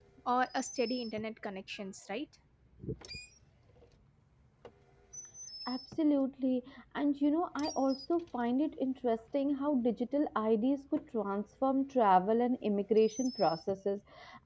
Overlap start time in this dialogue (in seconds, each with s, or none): none